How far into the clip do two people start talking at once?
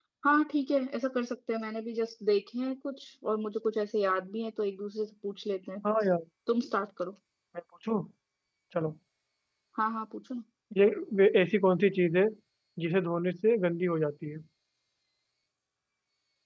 none

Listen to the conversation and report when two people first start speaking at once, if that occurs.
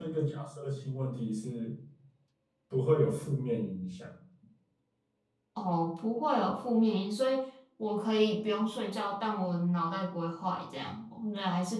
none

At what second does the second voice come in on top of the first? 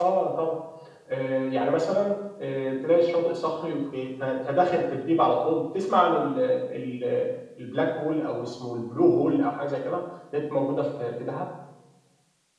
none

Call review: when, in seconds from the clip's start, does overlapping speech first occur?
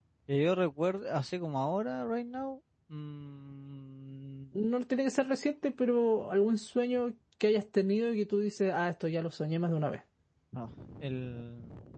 none

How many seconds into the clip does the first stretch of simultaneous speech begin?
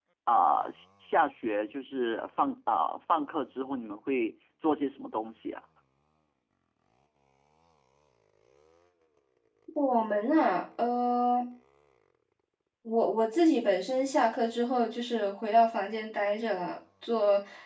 none

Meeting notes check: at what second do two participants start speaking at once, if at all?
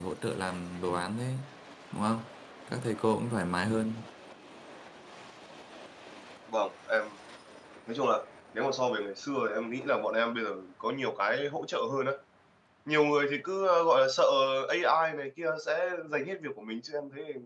none

